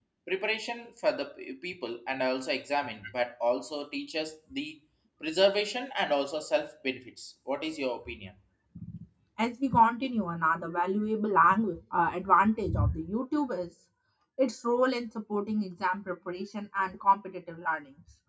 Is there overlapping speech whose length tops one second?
No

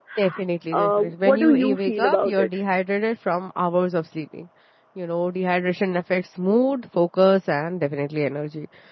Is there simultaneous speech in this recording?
Yes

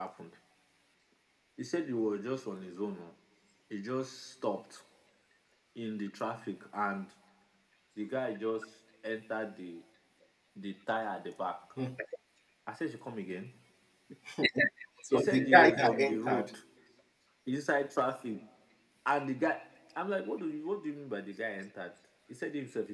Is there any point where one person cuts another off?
Yes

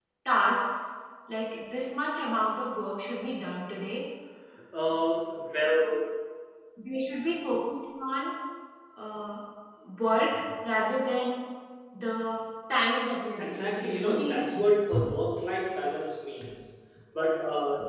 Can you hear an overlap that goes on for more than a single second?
Yes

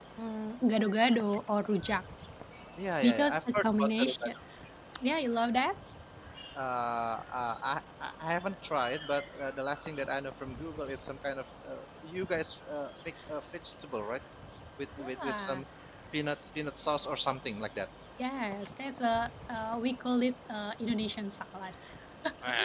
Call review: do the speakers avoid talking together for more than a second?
No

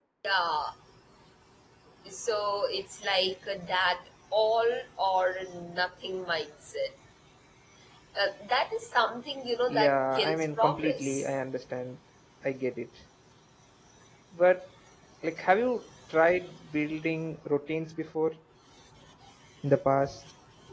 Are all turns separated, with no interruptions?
No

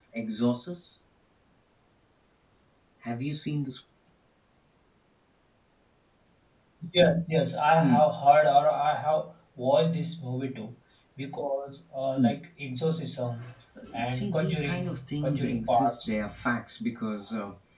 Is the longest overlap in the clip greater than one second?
Yes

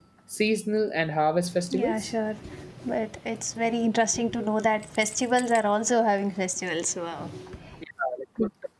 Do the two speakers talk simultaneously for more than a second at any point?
No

